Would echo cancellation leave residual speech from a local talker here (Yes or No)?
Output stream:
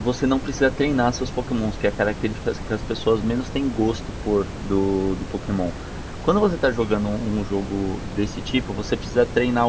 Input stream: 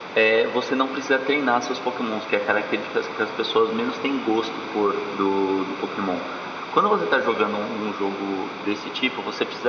No